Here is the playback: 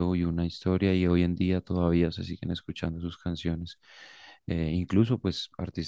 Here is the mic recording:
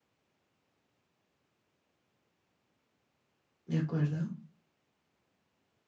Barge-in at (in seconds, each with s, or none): 3.7 s